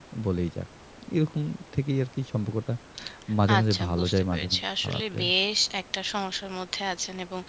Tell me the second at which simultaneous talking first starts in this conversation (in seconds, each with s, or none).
3.5 s